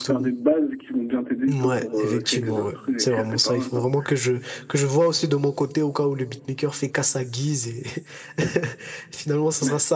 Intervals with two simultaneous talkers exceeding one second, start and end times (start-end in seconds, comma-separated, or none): 1.5-3.8